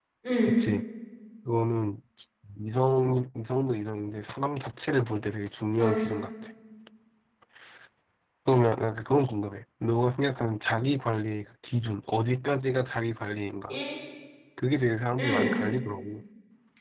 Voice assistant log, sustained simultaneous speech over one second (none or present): none